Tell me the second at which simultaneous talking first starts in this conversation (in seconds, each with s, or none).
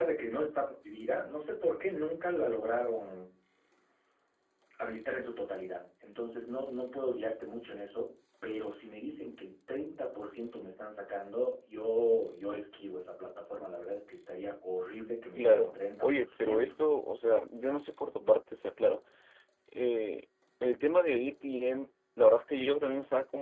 15.4 s